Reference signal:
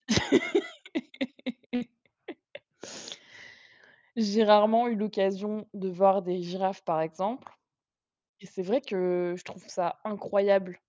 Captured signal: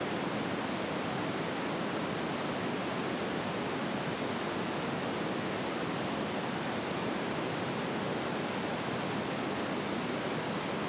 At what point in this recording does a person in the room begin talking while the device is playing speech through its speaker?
none

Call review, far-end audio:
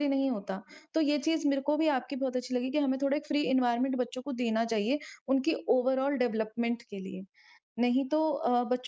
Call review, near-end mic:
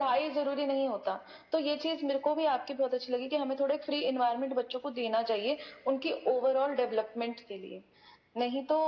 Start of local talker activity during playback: none

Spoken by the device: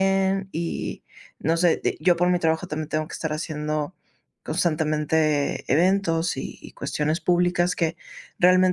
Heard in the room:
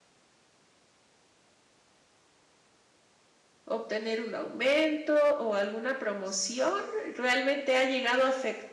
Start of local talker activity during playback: 4 s

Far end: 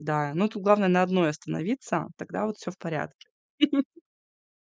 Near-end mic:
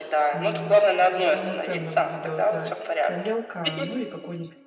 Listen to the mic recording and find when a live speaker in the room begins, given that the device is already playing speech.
0 s

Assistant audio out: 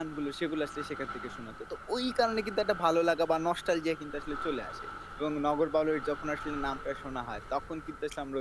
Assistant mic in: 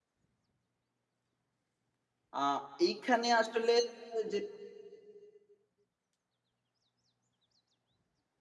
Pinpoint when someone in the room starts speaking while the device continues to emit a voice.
2 s

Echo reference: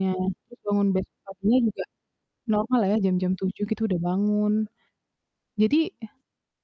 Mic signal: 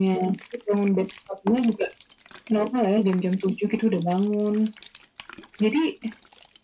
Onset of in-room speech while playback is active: none

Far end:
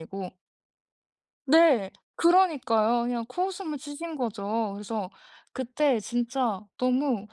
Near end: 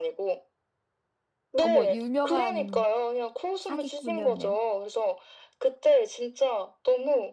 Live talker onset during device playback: 2 s

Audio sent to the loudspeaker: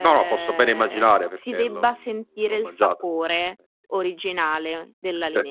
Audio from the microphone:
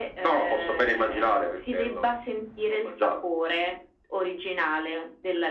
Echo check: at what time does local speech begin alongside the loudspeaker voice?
none

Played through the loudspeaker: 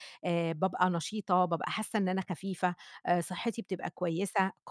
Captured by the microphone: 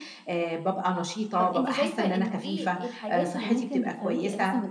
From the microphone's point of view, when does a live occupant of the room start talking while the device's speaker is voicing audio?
1 s

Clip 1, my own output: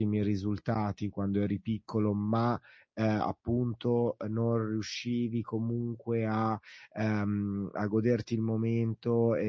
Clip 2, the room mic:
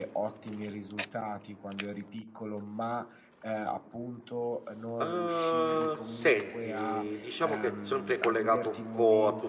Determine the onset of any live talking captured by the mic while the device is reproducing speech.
5 s

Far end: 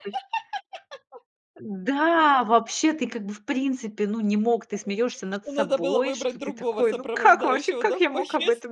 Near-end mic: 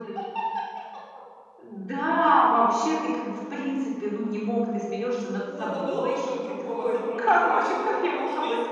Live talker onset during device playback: none

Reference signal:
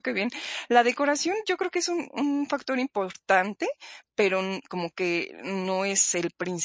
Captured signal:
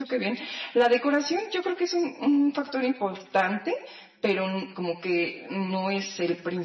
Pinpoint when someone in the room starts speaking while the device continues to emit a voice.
none

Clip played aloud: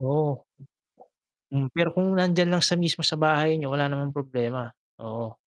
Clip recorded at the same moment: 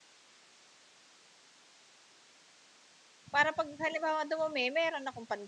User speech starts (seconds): 3 s

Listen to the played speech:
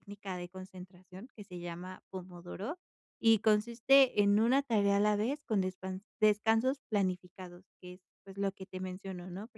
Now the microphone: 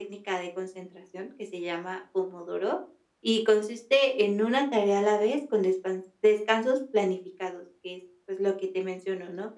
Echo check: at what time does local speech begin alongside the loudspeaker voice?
none

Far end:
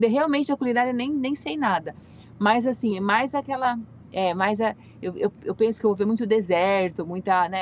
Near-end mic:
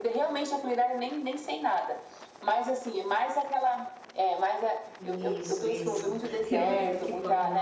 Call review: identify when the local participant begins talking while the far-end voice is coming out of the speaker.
5 s

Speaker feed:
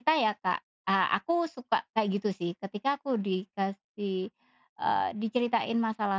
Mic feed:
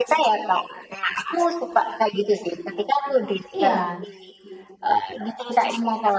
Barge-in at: 4 s

